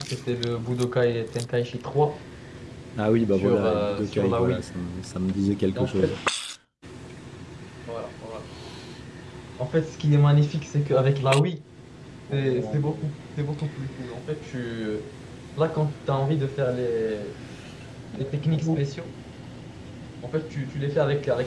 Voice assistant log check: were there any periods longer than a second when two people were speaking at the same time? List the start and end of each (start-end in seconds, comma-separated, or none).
3.4-4.7